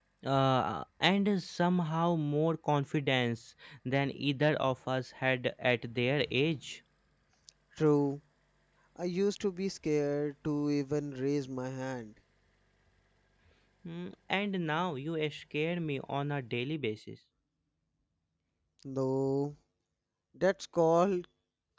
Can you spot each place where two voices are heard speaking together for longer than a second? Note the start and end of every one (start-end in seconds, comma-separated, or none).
none